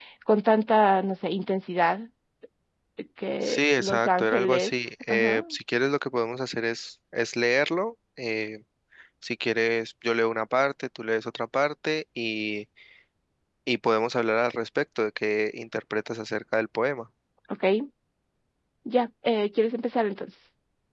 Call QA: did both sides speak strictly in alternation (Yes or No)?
No